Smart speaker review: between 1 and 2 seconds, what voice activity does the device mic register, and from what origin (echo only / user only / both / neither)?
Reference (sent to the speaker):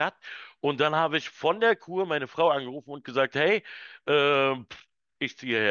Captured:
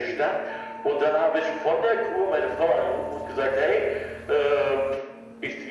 echo only